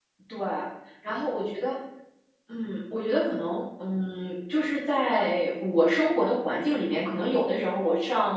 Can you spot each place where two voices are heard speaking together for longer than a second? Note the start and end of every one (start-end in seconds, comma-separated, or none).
none